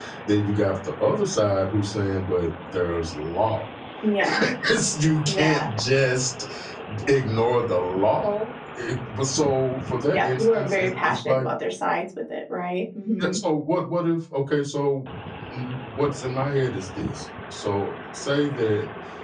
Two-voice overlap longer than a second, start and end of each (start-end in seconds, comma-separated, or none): 10.1-11.4